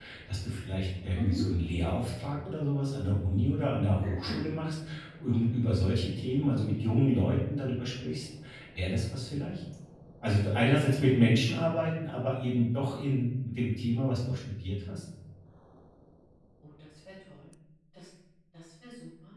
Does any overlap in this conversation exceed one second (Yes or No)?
No